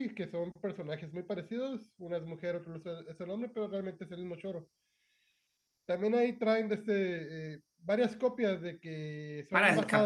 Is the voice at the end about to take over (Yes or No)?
Yes